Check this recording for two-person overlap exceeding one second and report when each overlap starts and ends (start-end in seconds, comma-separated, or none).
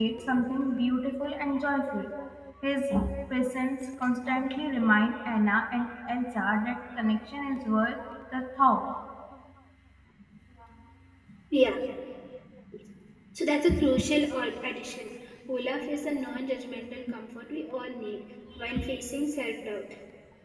none